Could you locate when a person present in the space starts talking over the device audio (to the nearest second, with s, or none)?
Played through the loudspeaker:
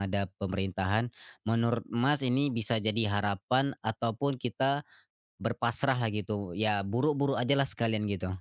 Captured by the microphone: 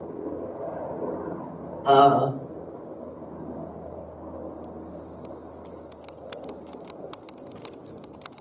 2 s